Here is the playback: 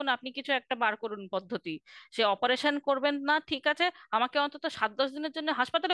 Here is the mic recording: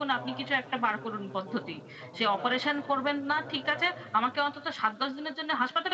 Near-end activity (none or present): present